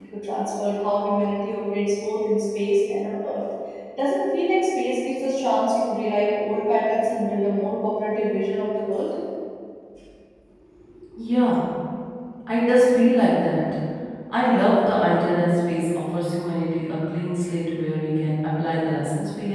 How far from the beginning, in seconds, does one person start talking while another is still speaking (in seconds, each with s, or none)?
none